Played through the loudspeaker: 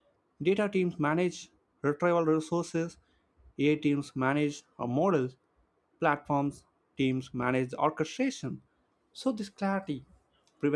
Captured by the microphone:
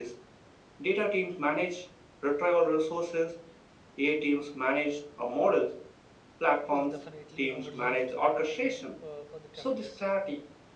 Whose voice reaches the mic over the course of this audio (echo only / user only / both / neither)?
both